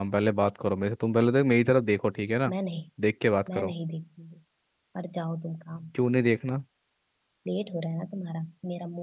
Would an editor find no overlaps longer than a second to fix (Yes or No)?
Yes